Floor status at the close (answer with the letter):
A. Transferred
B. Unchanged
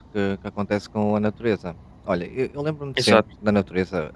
B